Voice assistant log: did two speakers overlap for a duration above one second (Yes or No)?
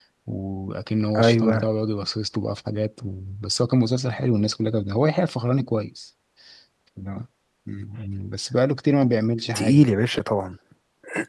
No